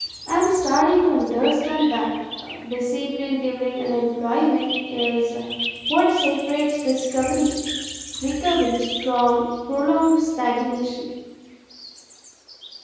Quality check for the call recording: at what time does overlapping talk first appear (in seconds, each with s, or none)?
none